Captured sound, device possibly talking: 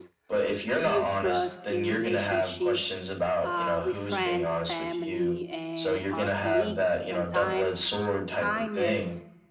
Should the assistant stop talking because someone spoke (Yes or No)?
Yes